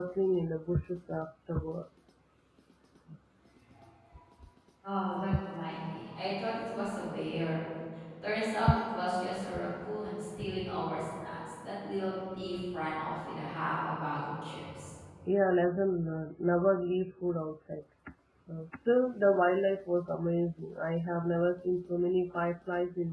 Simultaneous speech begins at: none

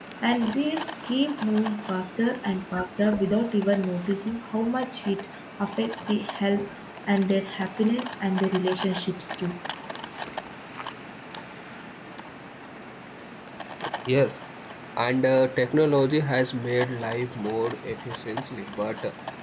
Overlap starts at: none

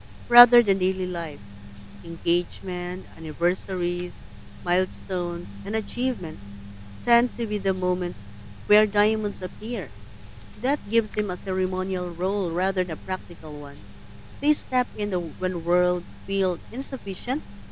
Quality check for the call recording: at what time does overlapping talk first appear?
none

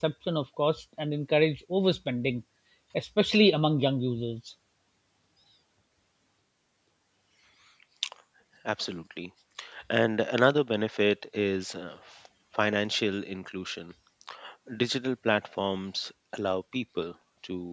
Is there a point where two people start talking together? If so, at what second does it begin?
none

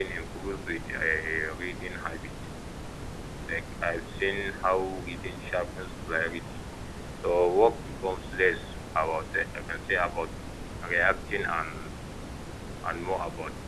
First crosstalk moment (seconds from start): none

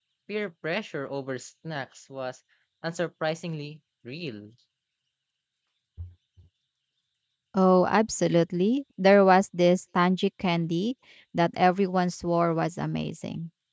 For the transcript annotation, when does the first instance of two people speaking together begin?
none

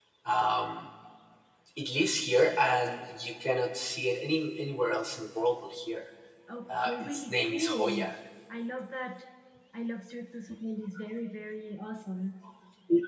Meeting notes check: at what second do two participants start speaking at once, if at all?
6.7 s

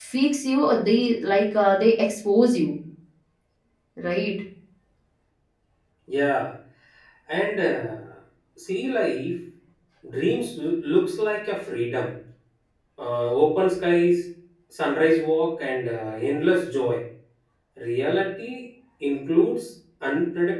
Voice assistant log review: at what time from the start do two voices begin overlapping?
none

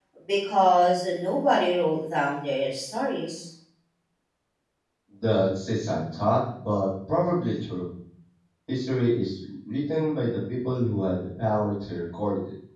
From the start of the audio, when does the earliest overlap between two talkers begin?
none

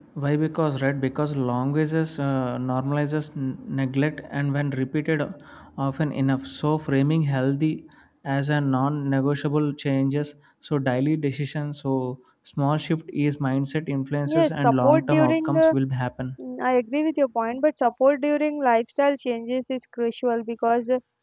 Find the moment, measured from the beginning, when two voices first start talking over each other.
14.3 s

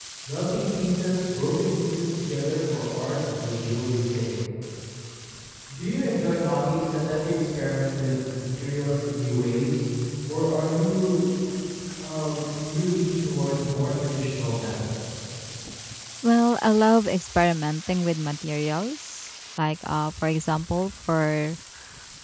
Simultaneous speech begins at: none

